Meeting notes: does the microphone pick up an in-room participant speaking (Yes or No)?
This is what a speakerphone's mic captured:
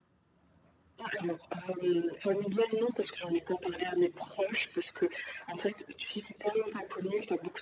No